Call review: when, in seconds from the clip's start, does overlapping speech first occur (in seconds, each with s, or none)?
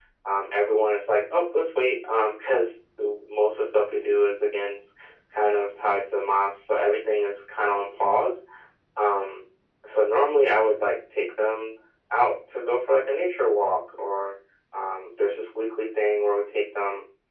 none